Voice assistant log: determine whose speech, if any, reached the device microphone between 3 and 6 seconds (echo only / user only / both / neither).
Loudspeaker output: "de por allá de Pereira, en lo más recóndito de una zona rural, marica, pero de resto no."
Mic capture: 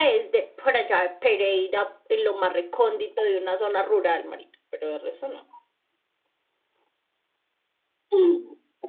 echo only